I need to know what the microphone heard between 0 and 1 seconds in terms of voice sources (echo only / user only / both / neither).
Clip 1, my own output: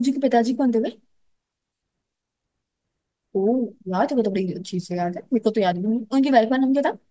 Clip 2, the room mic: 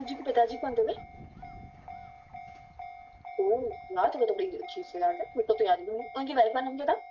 echo only